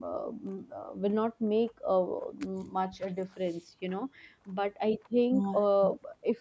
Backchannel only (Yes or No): Yes